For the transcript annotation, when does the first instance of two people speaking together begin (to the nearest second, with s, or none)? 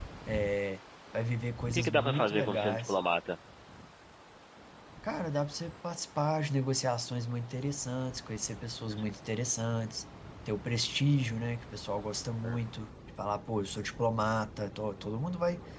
2 s